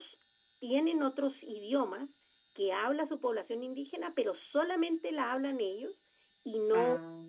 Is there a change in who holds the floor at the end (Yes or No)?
No